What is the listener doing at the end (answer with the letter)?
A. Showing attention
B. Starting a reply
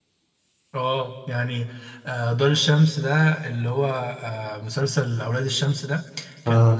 A